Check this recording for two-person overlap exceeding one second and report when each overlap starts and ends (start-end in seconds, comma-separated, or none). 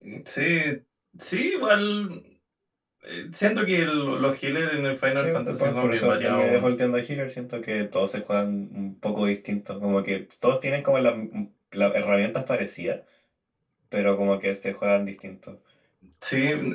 5.2-6.7